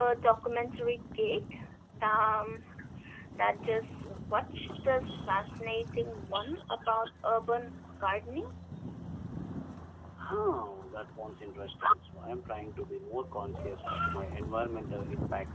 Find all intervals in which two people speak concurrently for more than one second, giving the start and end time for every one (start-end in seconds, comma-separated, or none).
none